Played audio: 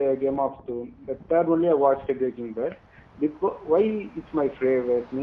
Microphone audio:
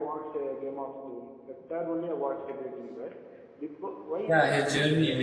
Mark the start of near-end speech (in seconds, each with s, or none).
4.3 s